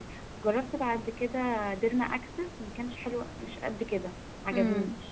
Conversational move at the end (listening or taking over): taking over